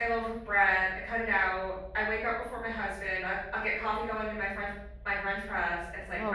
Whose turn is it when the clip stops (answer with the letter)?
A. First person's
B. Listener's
A